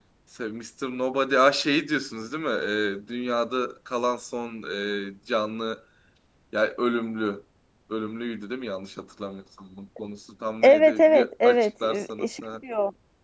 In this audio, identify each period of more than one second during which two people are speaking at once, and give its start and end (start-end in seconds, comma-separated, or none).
10.6-12.4